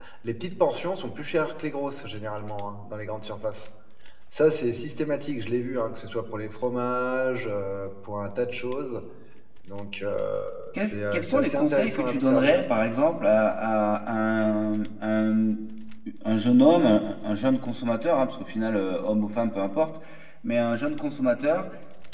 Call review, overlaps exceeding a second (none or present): present